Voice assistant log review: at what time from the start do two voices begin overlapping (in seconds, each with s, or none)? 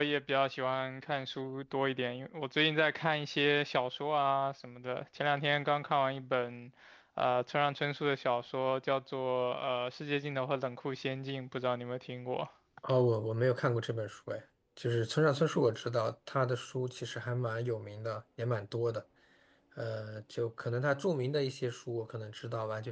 none